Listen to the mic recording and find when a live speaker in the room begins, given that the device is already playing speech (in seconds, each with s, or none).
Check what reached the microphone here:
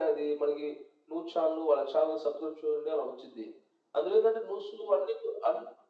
none